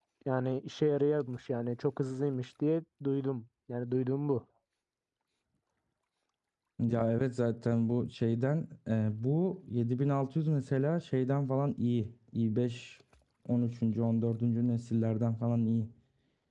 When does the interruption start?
none

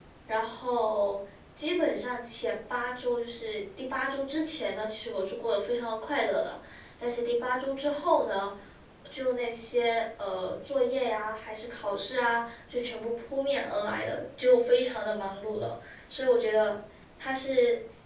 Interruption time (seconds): none

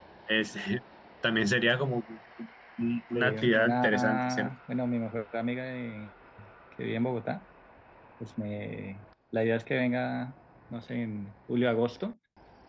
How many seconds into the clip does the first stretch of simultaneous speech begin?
3.1 s

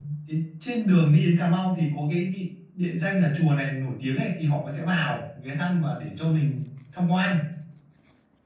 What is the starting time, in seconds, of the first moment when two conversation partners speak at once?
none

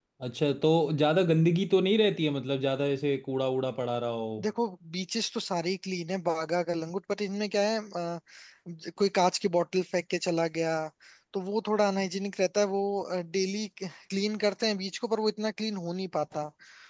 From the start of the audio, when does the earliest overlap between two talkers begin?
none

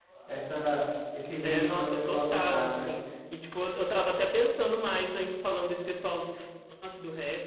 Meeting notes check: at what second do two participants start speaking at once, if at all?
1.4 s

